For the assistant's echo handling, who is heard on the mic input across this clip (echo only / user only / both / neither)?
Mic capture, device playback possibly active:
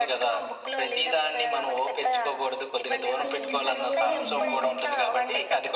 both